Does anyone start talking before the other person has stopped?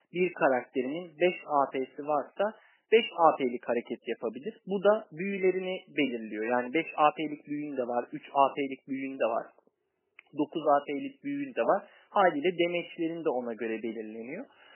No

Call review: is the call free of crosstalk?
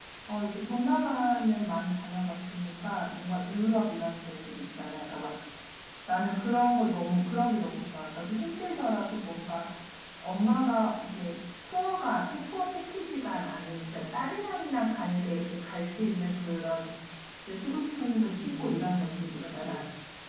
No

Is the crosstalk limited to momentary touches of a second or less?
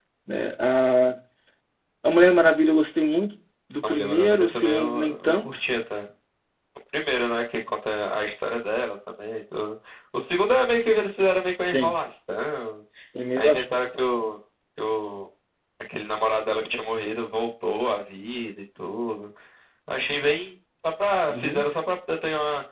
No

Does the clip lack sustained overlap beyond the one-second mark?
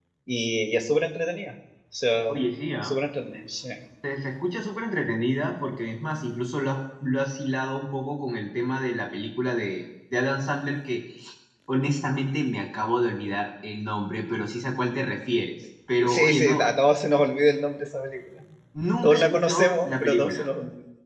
No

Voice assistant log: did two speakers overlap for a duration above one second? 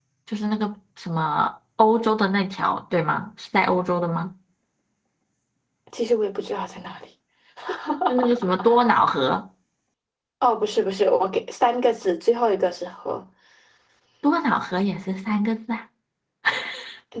No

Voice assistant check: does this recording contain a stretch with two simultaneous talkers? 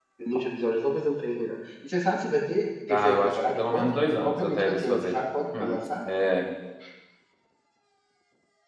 Yes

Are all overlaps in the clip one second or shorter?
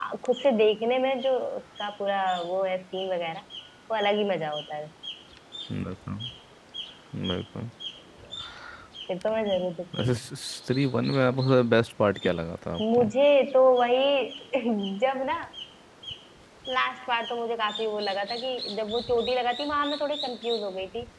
Yes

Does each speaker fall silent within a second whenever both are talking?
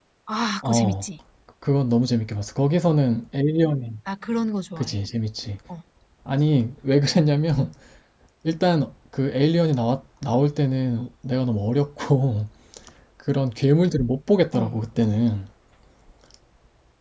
Yes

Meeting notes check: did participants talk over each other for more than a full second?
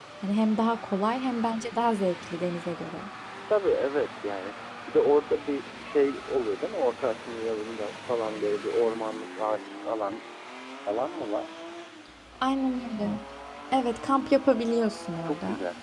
No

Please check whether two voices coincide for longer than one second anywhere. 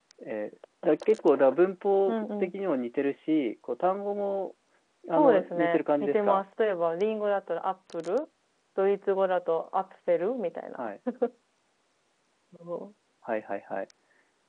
Yes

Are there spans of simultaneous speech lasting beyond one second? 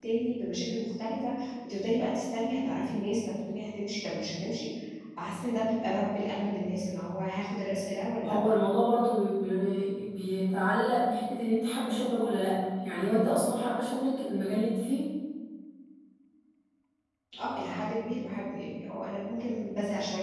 No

